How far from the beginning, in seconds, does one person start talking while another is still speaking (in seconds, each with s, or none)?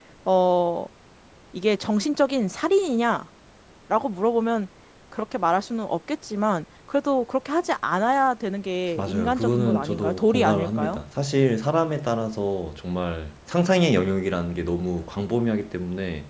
8.9 s